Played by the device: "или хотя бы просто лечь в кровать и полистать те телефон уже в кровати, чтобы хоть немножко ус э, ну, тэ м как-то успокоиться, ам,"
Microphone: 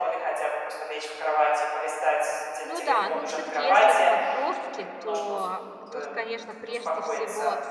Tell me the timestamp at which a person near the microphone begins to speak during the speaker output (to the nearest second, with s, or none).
3 s